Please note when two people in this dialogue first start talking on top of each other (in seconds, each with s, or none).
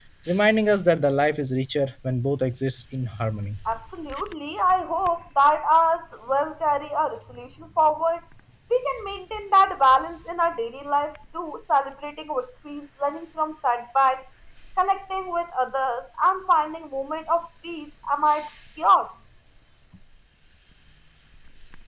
none